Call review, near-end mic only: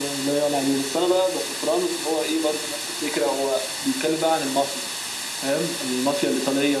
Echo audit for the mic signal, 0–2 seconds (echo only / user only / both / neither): echo only